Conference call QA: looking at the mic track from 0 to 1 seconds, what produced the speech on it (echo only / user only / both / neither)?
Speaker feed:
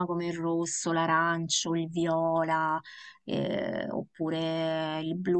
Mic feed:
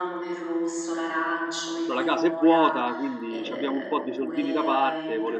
echo only